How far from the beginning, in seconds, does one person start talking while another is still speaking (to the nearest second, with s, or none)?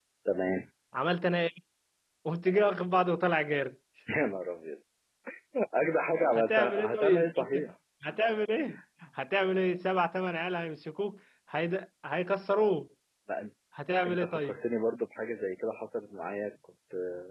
6 s